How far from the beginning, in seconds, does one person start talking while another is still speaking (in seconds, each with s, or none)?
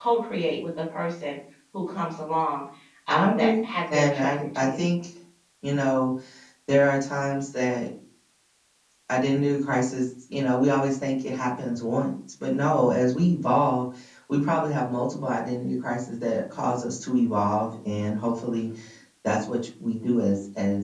3.1 s